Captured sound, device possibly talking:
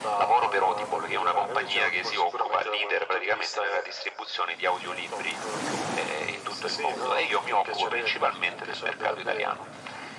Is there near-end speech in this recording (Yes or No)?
No